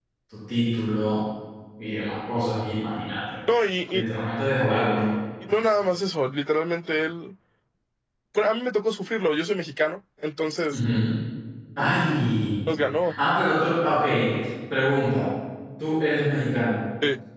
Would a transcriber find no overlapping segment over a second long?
Yes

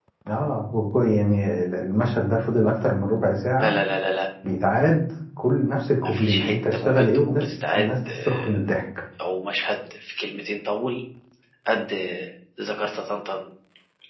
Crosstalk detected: Yes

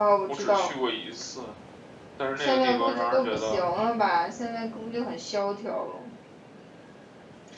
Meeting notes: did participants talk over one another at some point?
Yes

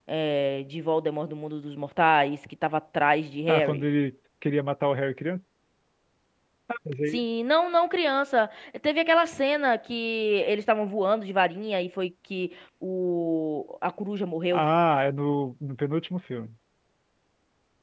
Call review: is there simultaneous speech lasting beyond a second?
No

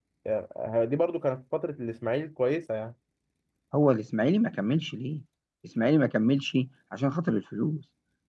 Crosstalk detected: No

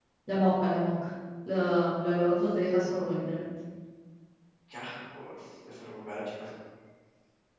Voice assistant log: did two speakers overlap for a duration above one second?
No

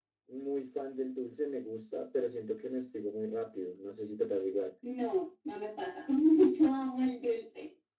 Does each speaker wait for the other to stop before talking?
Yes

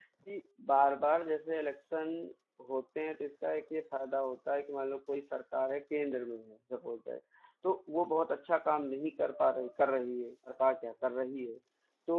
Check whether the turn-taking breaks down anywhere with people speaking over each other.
No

